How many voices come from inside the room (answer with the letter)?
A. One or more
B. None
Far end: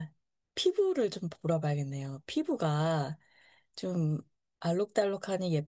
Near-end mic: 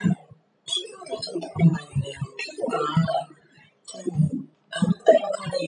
B